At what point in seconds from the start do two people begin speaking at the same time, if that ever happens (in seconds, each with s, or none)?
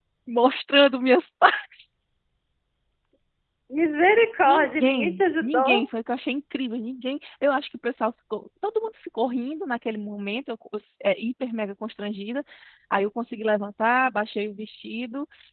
4.5 s